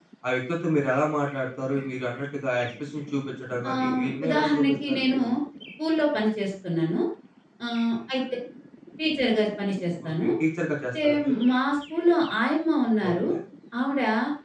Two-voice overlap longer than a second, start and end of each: 3.7-5.2

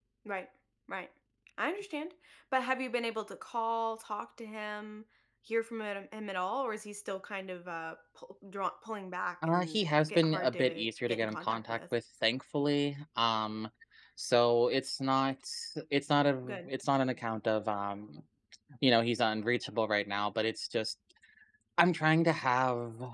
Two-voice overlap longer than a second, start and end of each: 9.4-11.8

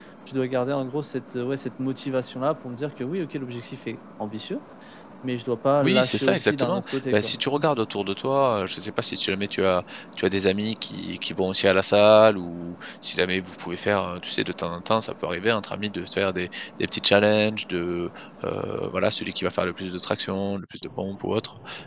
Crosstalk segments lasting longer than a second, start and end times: 5.8-7.3

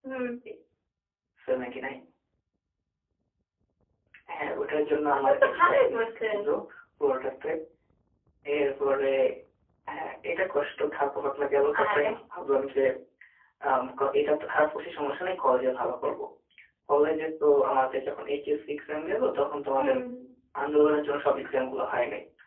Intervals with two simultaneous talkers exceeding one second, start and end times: 5.1-6.4

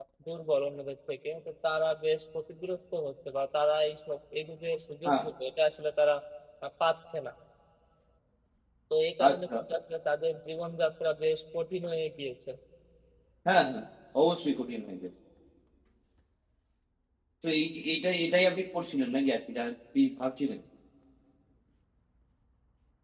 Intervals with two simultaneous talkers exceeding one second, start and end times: none

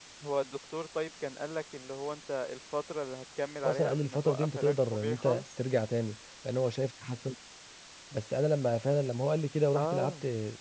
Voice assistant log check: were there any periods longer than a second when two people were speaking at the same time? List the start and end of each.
3.6-5.4

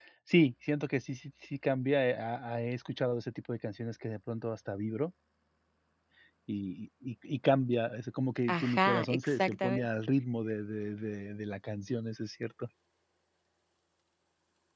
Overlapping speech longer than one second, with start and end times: 8.5-9.9

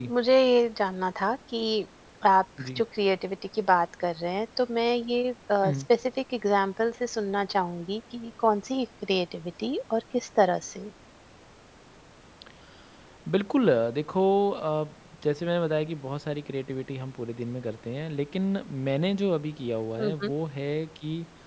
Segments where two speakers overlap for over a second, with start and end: none

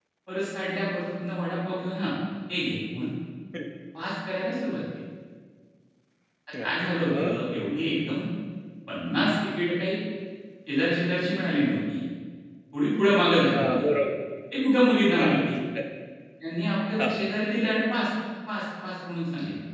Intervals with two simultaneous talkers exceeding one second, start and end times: none

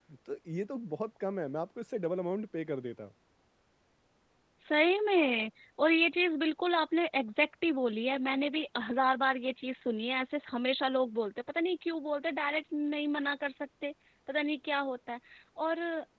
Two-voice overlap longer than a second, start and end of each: none

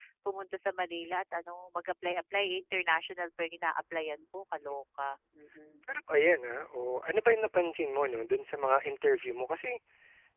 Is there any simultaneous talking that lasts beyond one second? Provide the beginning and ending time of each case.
none

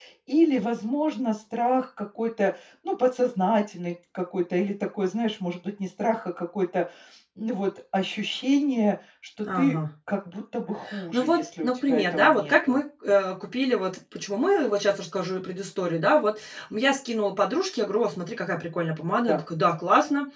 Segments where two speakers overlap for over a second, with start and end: 11.1-12.8

